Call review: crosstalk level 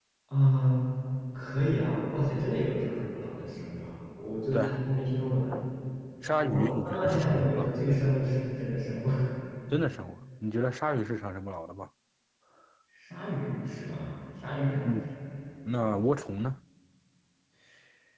present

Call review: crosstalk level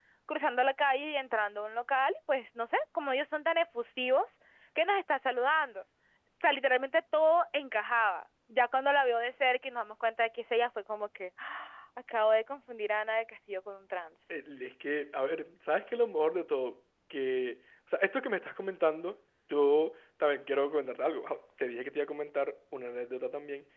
none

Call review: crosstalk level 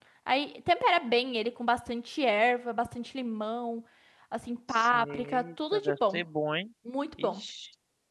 present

